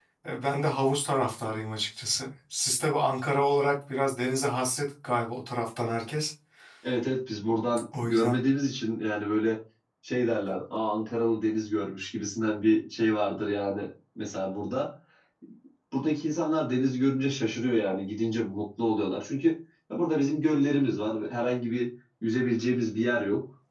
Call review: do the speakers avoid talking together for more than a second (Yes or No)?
Yes